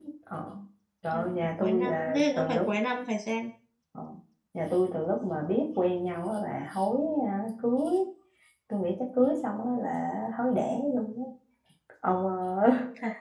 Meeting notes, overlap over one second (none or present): present